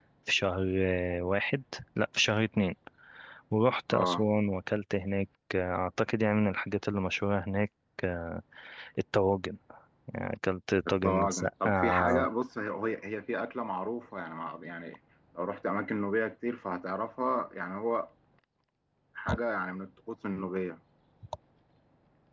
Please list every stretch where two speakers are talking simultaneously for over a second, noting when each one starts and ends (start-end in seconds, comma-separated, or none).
10.9-12.3